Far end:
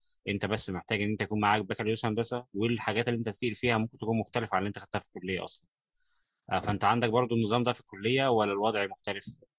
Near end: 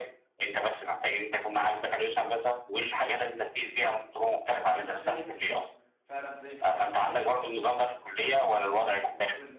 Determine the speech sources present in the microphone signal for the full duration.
both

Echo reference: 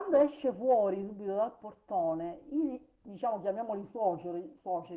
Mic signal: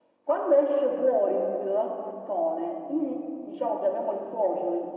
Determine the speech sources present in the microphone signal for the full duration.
echo only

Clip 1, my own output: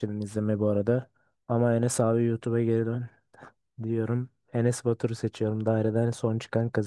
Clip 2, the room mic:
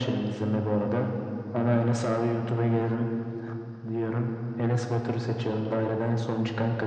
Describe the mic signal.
echo only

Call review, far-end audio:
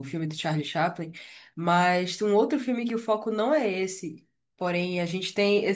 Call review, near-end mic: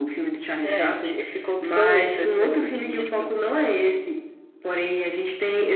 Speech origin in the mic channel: both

